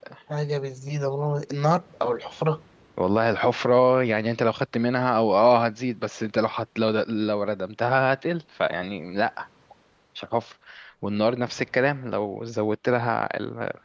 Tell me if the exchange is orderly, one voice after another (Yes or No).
Yes